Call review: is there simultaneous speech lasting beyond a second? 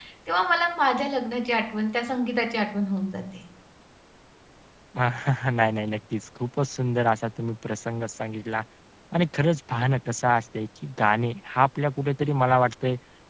No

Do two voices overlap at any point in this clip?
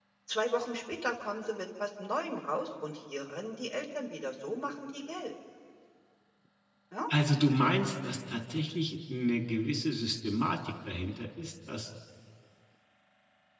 No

